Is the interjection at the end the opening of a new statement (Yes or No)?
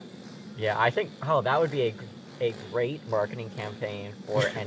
No